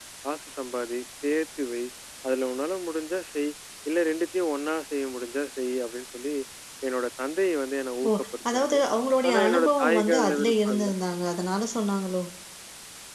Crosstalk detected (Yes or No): Yes